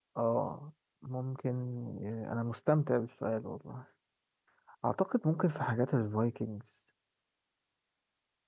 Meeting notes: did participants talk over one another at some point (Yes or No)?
No